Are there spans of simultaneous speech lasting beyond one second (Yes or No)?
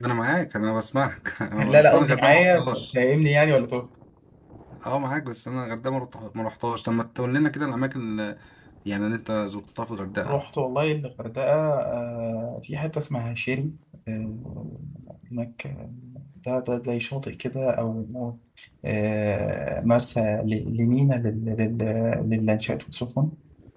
Yes